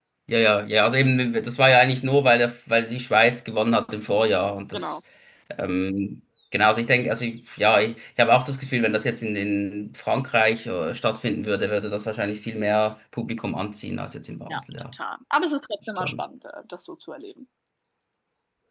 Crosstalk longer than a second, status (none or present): none